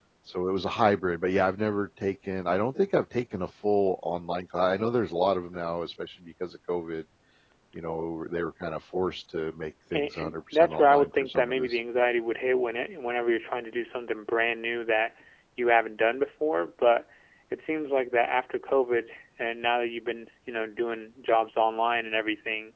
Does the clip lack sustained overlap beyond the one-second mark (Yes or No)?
No